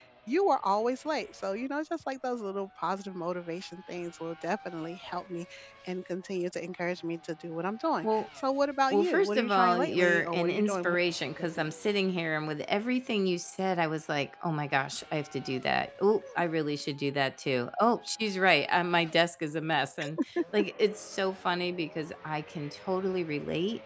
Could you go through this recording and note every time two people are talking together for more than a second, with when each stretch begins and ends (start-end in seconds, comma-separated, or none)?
8.9-10.9